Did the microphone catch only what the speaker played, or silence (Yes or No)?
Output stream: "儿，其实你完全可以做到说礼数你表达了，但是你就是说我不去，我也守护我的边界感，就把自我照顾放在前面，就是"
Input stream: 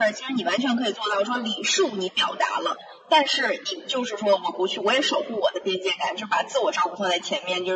Yes